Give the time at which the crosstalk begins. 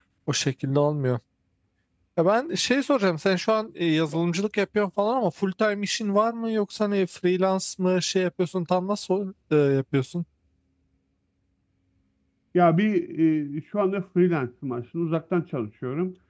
none

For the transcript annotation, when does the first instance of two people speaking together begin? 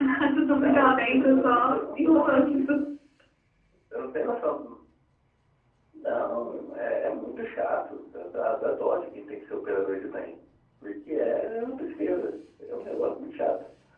1 s

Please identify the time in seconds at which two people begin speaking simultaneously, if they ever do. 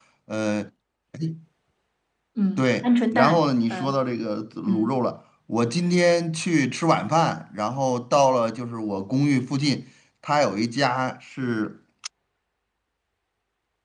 3 s

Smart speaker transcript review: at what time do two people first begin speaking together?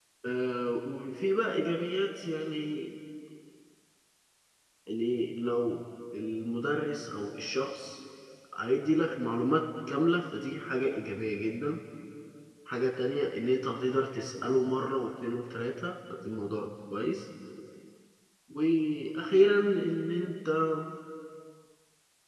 none

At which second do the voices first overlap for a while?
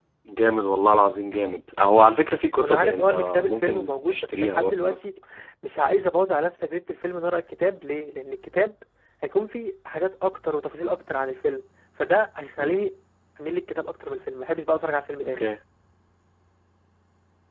3 s

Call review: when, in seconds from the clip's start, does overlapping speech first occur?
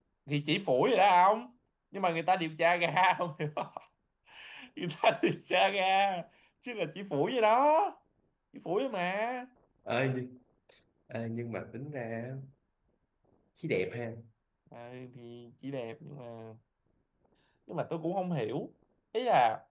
none

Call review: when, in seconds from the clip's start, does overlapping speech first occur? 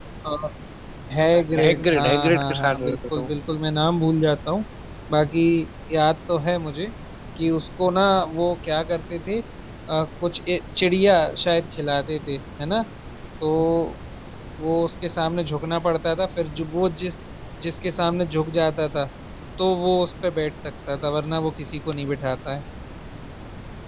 2 s

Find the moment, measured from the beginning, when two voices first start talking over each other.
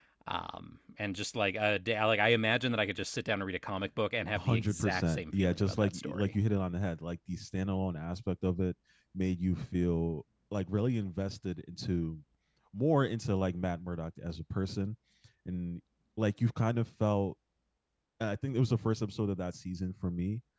4 s

